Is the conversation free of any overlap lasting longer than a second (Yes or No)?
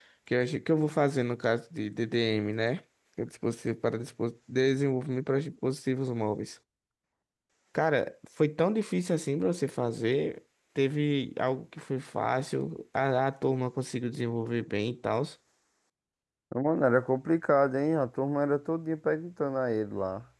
Yes